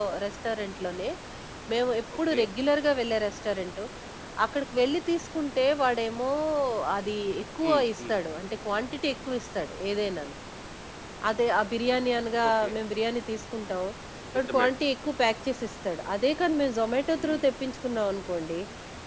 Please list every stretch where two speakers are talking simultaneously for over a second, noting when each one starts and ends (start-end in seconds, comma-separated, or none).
none